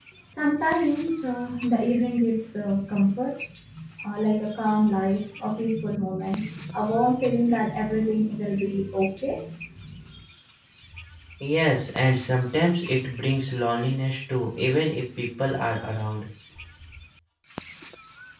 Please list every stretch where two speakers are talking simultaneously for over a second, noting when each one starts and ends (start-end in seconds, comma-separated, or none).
none